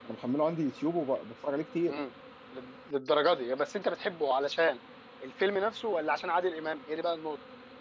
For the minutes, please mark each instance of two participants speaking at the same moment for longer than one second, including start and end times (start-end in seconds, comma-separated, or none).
none